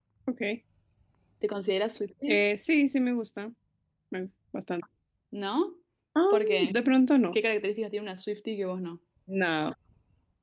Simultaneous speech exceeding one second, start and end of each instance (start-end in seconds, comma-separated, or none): none